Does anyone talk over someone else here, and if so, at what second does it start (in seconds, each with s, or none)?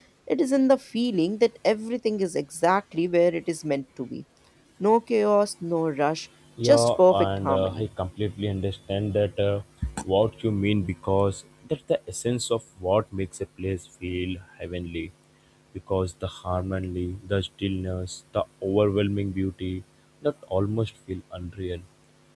6.6 s